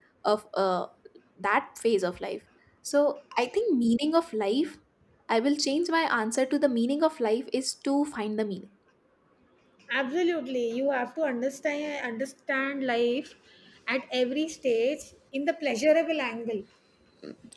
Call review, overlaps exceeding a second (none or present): none